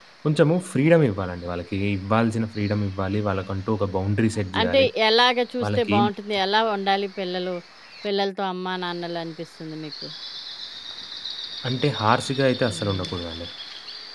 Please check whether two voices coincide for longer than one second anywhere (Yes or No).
No